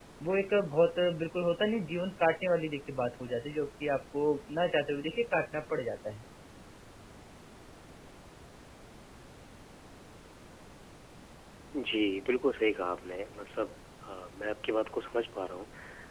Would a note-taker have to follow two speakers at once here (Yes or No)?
No